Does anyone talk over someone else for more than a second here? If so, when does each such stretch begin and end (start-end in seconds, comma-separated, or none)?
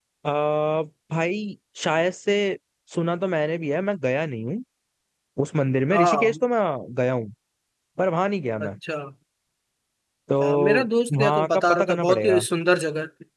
11.2-12.4